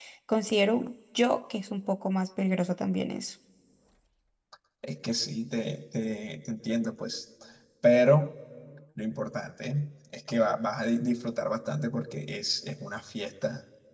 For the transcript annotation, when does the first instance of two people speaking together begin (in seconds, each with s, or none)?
none